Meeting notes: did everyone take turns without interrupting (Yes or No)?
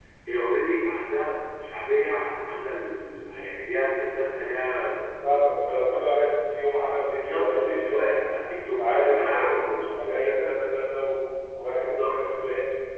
No